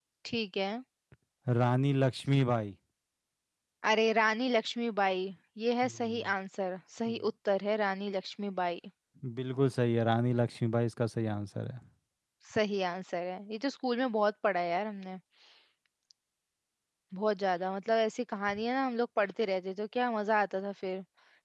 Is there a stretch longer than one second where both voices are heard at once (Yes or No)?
No